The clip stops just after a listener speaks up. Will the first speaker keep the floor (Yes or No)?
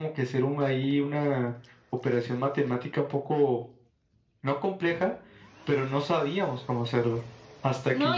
No